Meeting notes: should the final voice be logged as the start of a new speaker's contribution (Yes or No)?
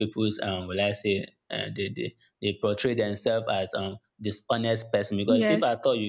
No